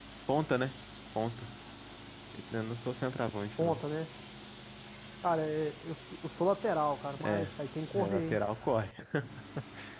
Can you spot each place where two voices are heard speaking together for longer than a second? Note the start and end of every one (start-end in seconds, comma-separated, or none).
none